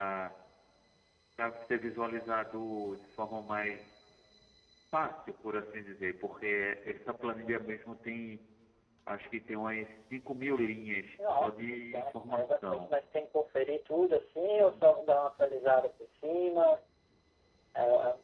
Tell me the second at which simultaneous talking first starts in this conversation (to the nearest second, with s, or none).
11 s